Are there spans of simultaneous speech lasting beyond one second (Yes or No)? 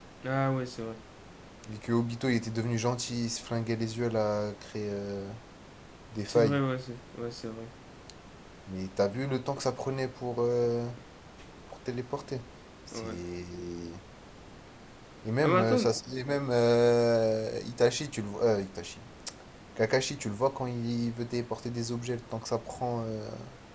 No